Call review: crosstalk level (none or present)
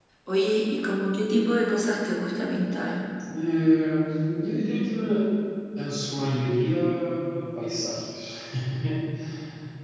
none